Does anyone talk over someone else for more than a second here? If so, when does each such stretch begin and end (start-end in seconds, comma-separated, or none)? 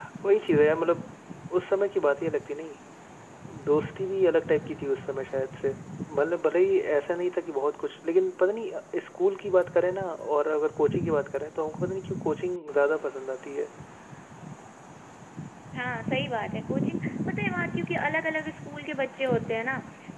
none